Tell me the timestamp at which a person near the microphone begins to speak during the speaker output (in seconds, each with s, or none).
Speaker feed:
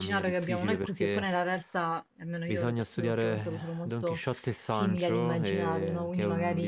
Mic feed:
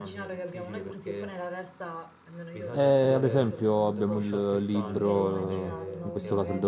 2.7 s